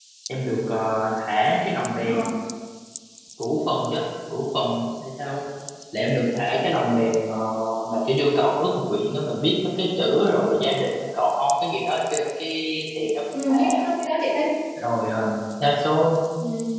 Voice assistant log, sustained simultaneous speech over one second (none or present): none